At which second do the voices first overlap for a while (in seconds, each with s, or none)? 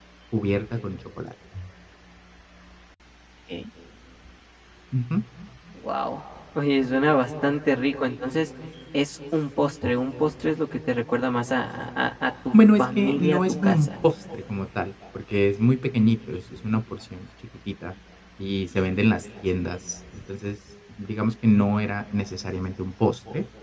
12.5 s